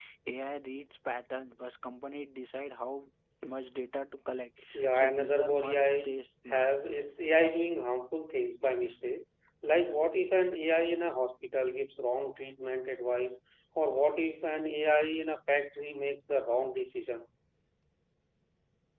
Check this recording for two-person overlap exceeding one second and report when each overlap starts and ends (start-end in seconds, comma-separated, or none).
4.7-6.0